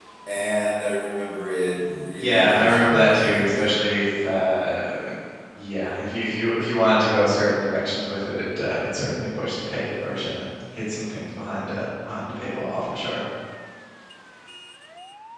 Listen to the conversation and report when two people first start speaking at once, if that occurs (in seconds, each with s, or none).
2.2 s